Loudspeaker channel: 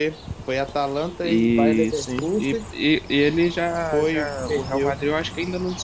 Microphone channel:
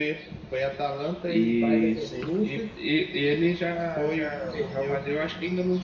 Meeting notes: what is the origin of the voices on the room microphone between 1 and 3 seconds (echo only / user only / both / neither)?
echo only